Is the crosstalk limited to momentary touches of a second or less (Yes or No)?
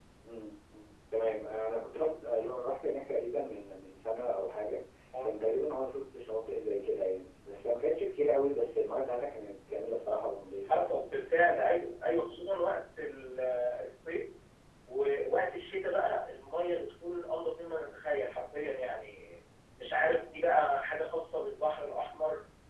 Yes